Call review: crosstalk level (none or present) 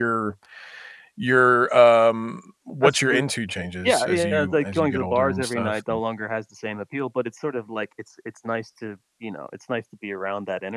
present